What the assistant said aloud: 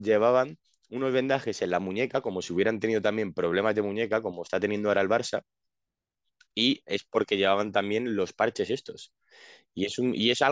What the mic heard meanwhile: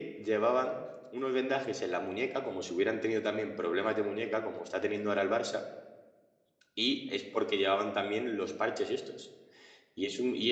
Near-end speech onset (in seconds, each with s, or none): none